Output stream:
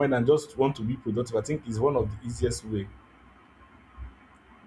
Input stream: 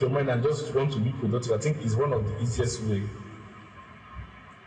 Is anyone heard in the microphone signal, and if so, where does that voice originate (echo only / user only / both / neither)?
echo only